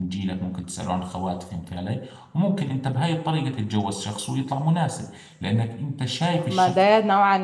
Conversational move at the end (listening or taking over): taking over